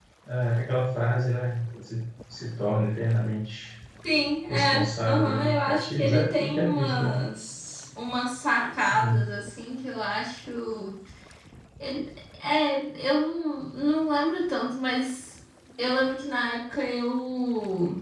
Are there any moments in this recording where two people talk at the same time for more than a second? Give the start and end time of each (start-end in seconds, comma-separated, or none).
4.5-7.1